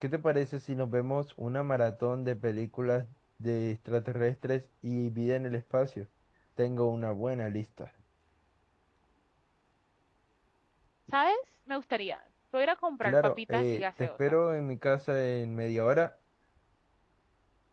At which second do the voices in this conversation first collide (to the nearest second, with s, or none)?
13 s